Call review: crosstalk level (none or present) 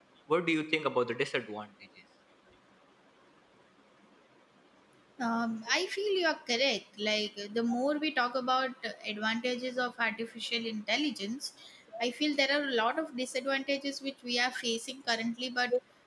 none